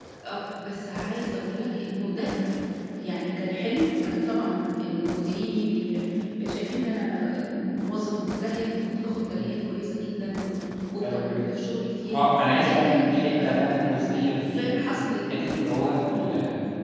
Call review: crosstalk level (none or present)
present